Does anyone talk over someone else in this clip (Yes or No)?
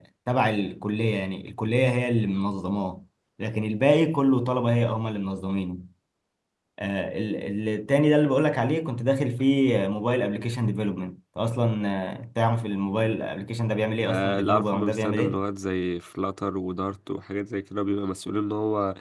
Yes